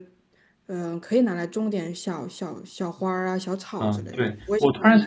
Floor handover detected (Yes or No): Yes